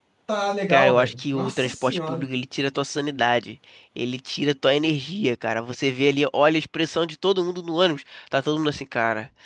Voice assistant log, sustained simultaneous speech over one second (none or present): present